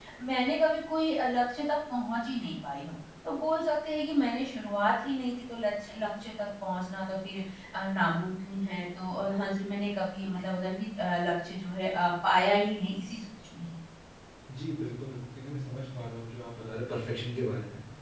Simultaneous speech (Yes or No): No